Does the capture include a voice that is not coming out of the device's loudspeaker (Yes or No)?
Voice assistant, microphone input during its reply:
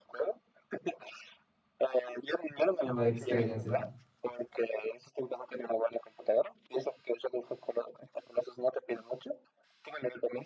Yes